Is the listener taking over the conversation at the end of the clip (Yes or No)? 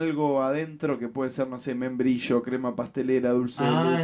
Yes